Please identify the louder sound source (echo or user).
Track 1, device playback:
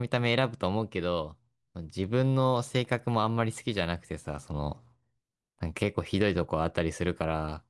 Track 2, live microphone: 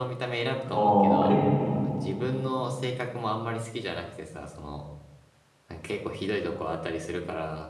user